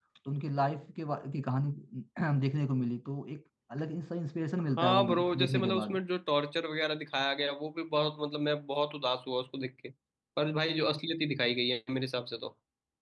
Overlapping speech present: Yes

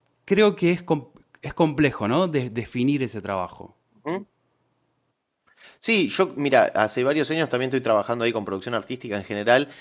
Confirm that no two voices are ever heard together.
Yes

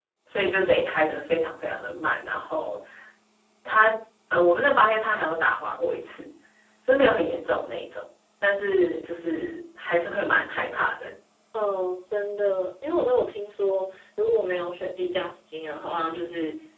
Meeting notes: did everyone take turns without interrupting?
Yes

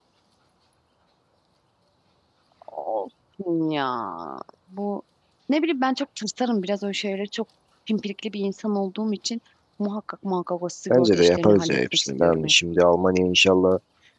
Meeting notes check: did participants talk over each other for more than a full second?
Yes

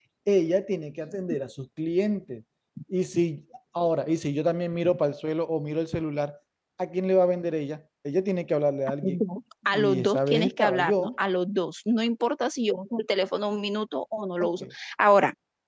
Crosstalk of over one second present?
Yes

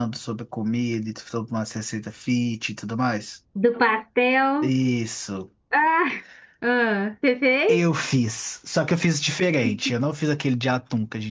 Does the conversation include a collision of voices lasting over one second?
No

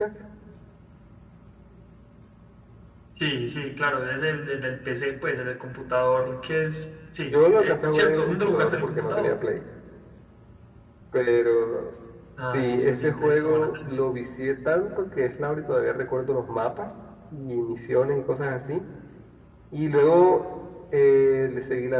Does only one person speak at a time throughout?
No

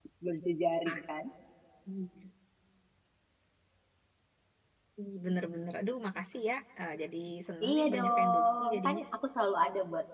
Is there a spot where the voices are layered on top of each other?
Yes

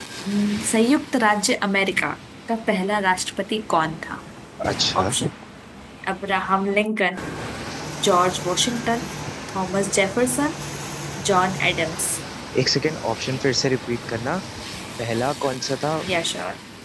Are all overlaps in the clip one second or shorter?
Yes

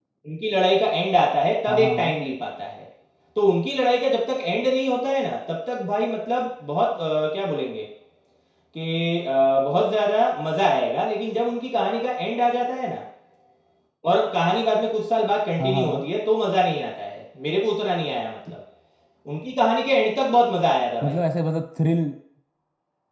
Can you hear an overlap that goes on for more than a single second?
No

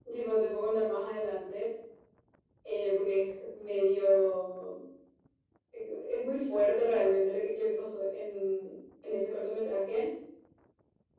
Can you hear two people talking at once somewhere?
No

